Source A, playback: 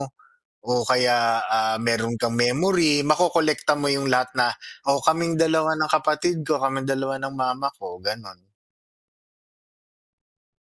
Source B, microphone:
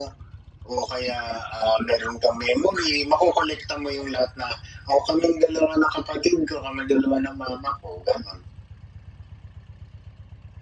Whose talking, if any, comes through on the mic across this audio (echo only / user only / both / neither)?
echo only